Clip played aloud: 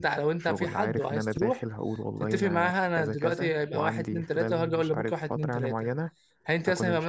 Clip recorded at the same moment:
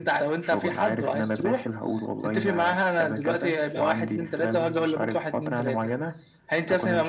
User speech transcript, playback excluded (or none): none